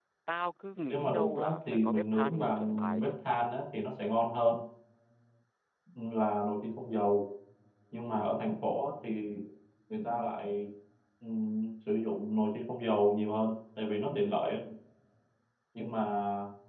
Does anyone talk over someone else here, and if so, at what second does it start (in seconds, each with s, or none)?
0.9 s